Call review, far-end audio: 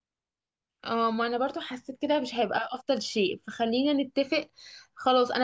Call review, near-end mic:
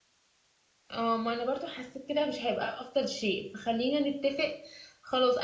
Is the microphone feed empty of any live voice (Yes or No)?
Yes